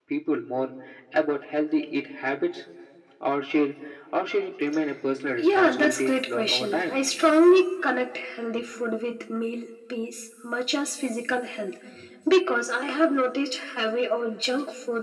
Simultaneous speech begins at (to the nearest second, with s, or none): 5 s